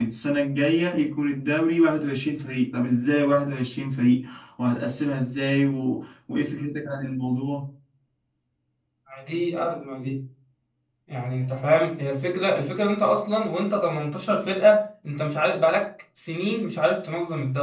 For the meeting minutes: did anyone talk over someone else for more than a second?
No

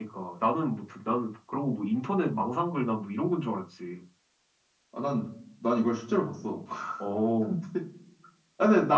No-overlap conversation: Yes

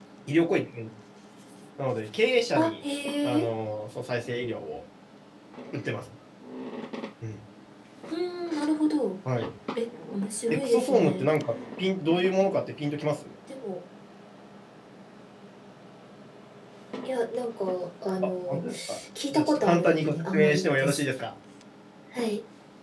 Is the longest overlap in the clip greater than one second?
Yes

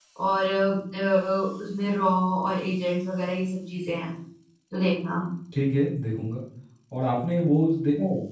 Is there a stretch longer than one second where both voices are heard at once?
No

